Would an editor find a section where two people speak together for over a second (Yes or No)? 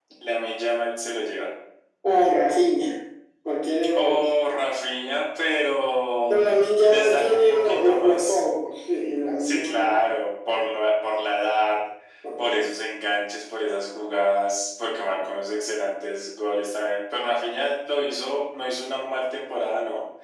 Yes